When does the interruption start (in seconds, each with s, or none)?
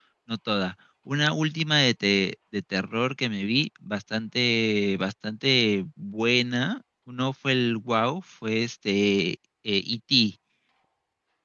none